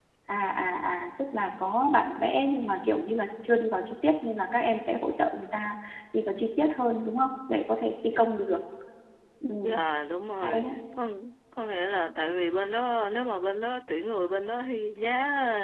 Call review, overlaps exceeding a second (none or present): none